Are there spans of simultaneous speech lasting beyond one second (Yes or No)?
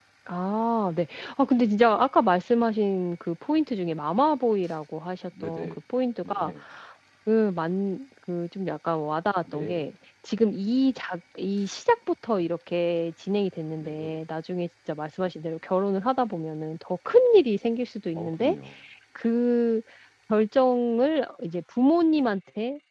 No